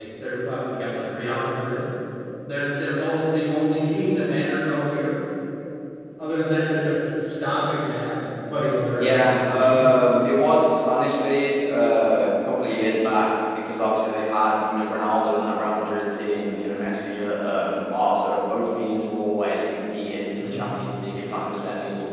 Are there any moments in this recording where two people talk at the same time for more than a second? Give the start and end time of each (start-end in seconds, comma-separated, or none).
8.9-10.2